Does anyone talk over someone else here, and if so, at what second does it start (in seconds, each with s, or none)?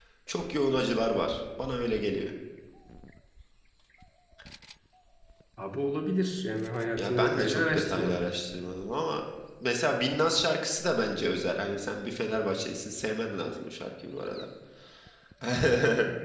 7.0 s